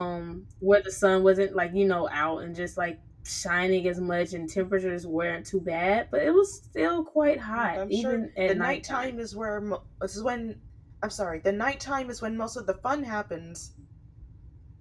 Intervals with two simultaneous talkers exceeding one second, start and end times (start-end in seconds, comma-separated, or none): 7.5-9.1